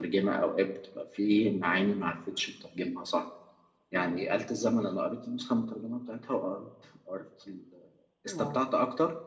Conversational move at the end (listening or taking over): listening